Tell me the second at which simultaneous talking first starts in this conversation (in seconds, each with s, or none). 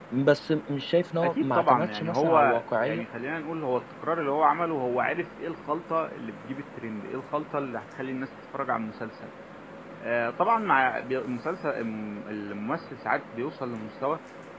1.2 s